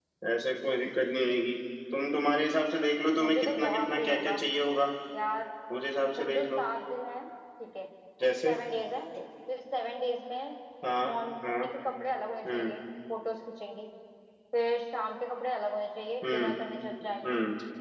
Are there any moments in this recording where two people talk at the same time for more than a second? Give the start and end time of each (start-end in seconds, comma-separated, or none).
3.2-4.4